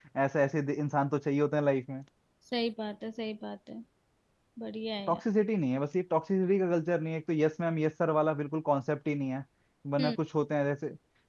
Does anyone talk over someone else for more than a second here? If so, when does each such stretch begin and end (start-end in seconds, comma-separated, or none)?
none